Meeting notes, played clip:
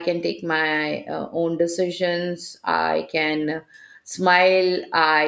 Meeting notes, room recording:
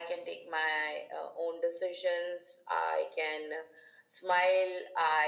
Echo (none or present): present